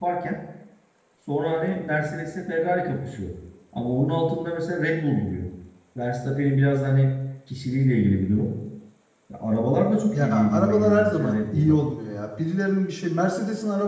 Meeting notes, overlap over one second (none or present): present